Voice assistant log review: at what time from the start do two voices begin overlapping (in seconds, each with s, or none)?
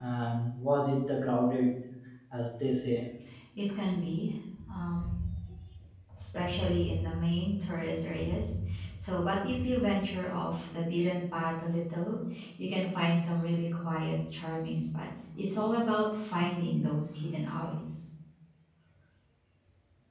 none